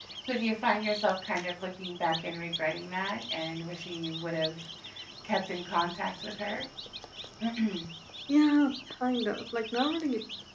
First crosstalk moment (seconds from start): none

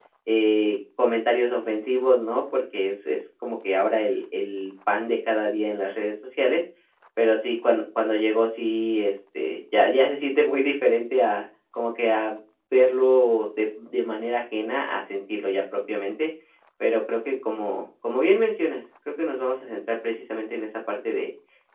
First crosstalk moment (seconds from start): none

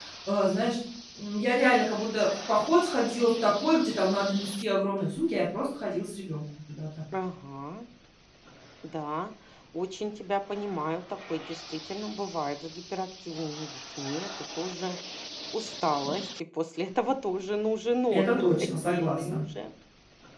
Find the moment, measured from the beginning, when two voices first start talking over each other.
18.1 s

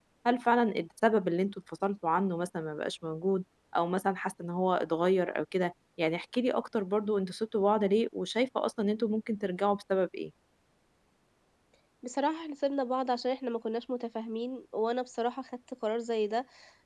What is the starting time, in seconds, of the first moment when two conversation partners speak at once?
none

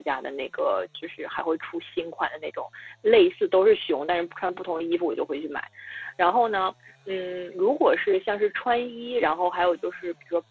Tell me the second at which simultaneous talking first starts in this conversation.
none

